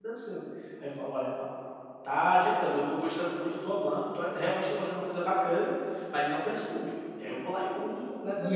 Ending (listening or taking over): taking over